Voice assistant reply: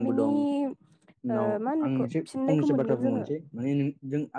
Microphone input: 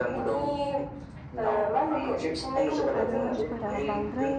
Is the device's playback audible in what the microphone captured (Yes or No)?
Yes